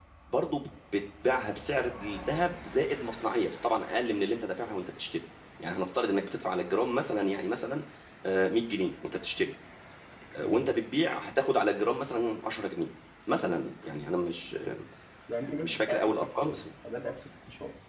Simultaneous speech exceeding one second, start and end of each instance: 15.4-16.6

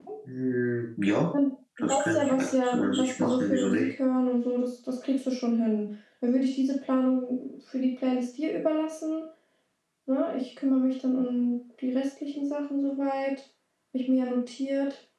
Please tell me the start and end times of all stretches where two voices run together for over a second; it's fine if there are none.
1.8-3.9

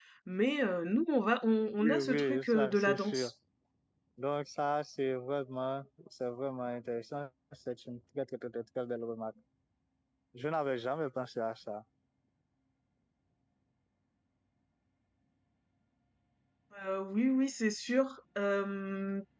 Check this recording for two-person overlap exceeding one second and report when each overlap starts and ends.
1.8-3.3

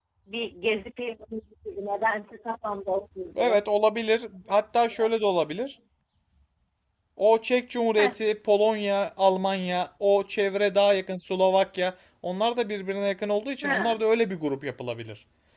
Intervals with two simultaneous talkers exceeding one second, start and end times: none

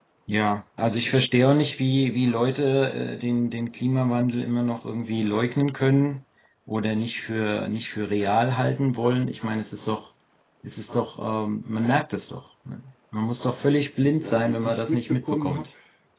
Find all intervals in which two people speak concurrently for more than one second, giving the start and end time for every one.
14.2-15.7

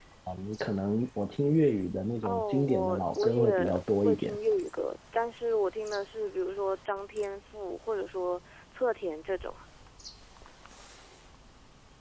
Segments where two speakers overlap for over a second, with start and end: 2.2-4.4

